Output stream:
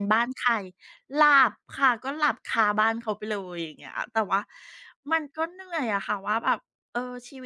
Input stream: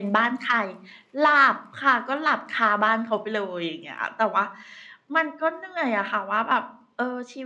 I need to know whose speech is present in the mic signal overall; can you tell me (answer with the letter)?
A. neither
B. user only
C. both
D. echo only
D